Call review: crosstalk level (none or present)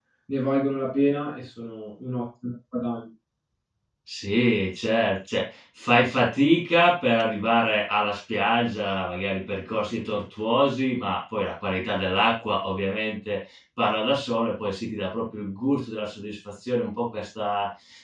none